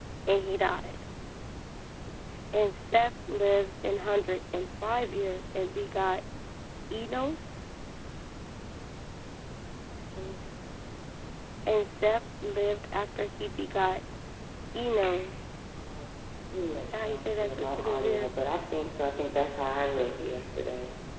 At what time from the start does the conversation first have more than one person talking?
16.9 s

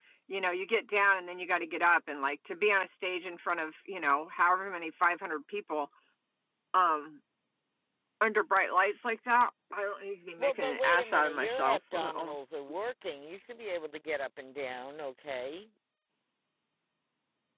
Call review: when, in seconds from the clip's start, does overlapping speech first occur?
10.4 s

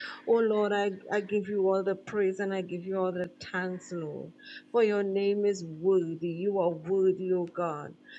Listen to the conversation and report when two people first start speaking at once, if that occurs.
none

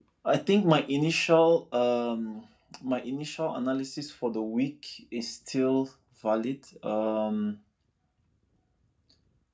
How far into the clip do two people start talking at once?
none

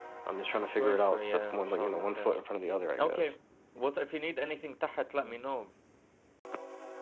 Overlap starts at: 0.5 s

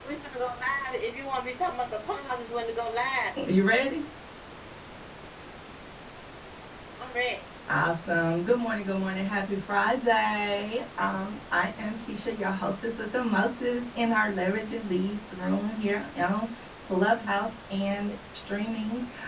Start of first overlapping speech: none

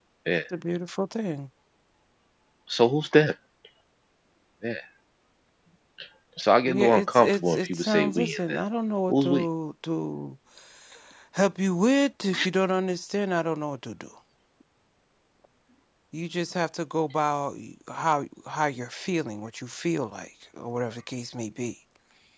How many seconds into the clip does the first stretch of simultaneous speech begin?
6.6 s

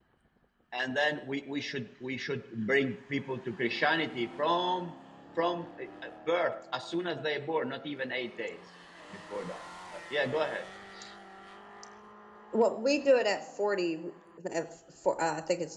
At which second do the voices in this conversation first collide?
none

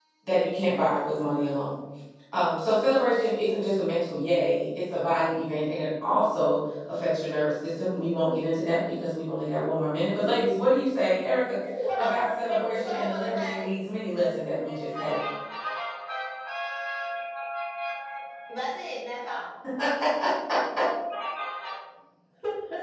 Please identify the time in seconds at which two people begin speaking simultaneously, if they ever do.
12.0 s

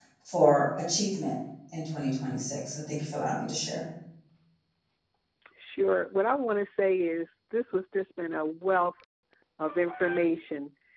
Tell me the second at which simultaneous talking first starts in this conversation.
none

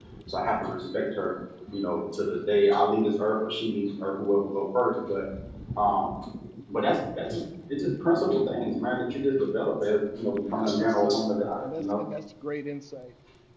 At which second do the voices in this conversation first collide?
10.5 s

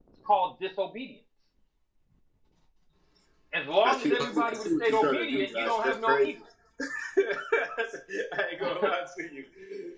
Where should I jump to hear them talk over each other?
3.8 s

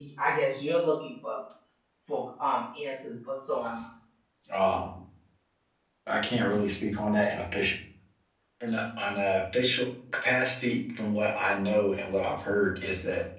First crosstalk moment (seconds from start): none

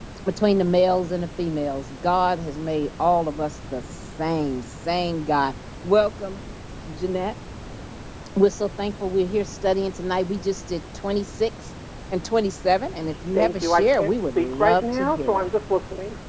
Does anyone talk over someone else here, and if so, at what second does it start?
13.3 s

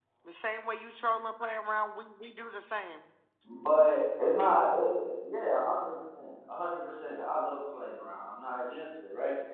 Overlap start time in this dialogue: none

